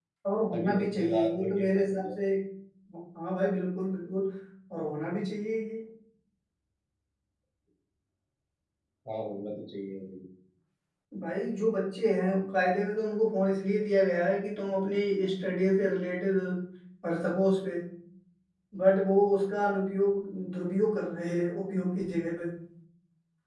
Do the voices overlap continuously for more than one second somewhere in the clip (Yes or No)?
Yes